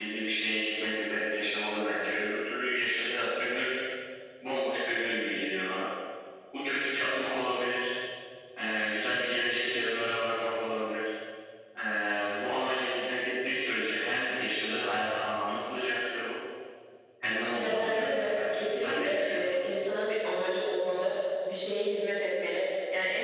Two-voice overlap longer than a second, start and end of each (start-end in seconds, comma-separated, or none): 17.6-19.6